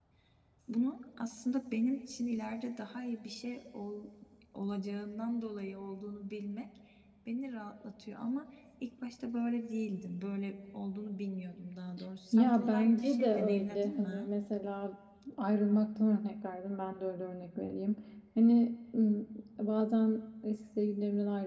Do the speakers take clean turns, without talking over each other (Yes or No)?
No